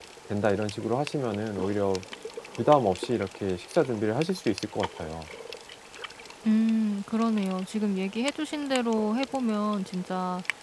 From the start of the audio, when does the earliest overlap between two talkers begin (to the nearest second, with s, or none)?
none